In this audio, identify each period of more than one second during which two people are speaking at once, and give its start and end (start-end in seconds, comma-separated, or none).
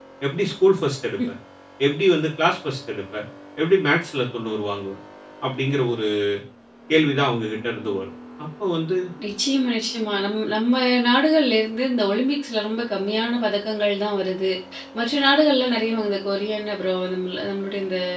none